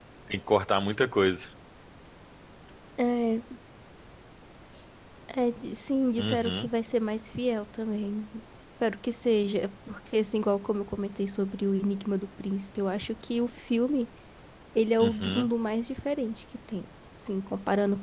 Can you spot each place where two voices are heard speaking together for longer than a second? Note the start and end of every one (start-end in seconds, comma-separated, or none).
none